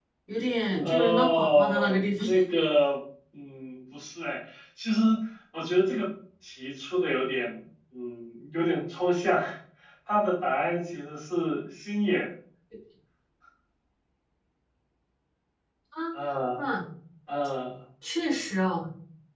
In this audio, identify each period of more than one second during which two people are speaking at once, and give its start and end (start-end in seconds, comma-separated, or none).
0.7-2.2